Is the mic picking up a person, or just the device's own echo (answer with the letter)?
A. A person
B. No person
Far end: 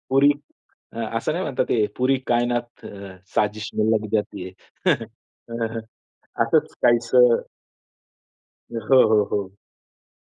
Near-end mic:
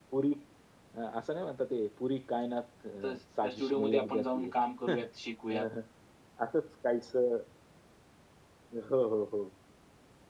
A